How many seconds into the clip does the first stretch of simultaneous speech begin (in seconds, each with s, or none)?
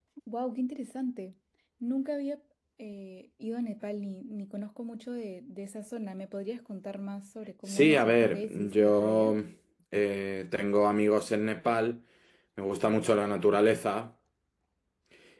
7.7 s